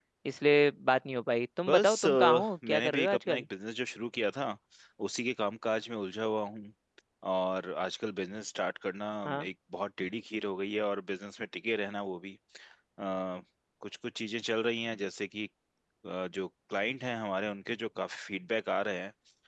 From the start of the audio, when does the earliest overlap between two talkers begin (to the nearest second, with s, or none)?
2 s